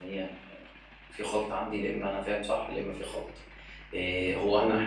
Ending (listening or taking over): listening